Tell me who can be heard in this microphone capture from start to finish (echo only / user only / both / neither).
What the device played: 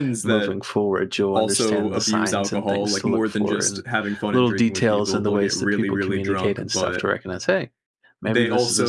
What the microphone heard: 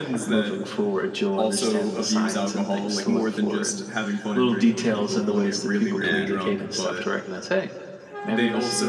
both